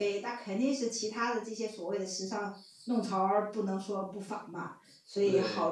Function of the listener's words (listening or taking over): listening